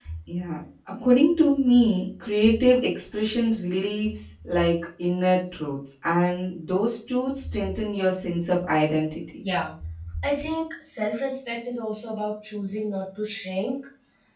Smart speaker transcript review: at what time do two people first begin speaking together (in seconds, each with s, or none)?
none